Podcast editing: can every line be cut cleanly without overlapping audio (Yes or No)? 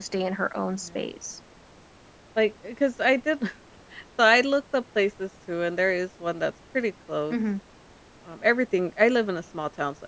Yes